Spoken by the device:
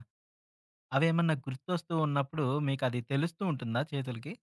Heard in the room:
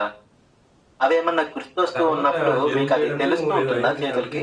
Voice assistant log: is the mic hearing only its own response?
No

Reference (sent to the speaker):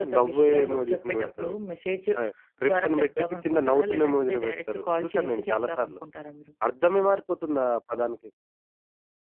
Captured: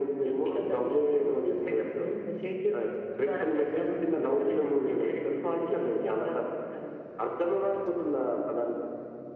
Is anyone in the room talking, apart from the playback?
No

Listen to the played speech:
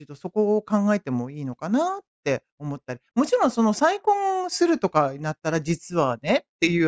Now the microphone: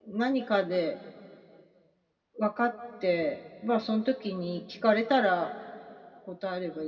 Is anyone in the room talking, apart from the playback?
Yes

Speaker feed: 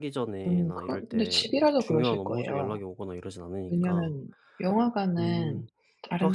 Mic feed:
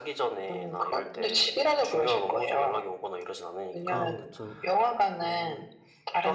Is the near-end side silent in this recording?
No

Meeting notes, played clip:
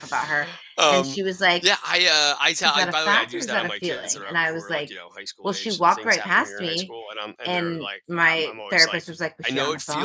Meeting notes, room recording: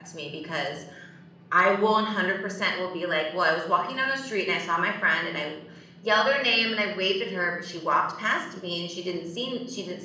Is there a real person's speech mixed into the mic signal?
Yes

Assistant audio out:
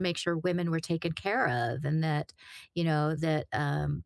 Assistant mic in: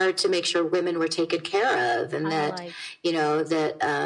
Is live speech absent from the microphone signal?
No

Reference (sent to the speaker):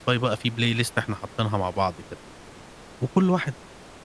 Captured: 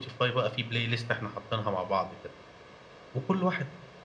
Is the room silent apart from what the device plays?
Yes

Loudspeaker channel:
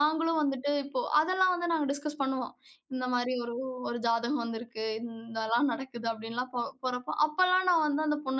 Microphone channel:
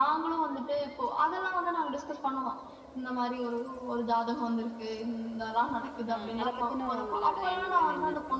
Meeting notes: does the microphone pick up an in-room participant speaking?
Yes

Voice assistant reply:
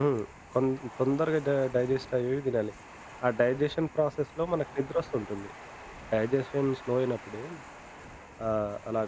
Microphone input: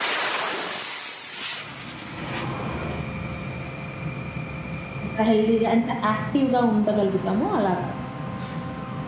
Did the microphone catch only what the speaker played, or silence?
No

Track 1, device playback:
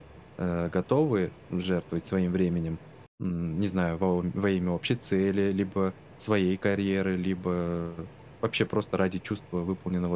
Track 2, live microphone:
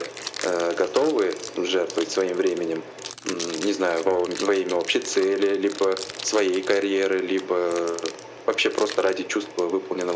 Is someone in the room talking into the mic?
No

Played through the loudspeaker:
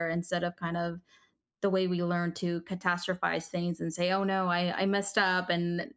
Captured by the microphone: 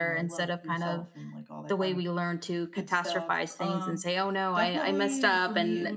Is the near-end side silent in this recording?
No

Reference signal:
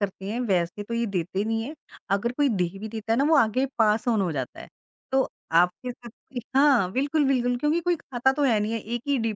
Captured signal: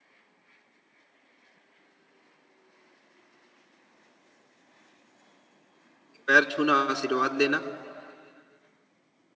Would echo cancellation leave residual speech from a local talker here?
Yes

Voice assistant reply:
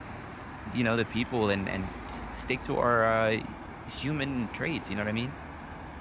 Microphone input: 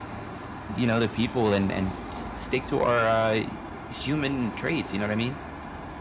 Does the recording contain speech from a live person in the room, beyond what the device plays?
No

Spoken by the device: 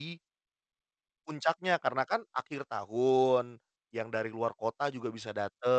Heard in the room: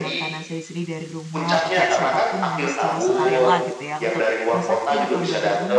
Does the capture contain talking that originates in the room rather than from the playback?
Yes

